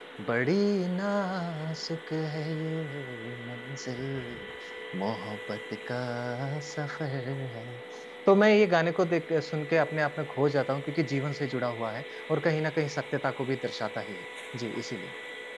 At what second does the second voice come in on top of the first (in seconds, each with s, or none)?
none